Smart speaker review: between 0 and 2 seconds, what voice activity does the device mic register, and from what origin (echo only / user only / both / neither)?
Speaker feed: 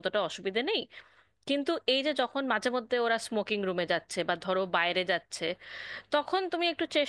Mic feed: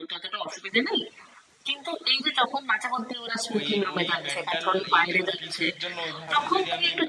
echo only